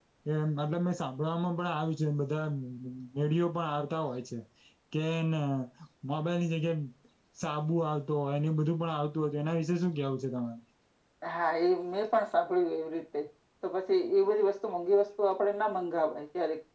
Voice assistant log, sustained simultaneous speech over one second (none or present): none